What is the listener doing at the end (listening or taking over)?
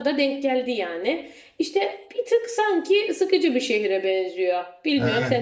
taking over